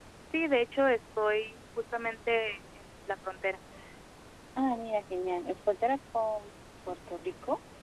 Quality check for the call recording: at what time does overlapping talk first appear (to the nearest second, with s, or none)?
none